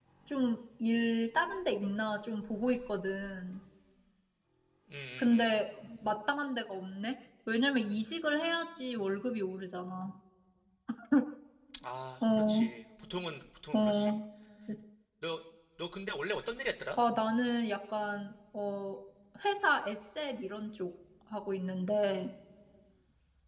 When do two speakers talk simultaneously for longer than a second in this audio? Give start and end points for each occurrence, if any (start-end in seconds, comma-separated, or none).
none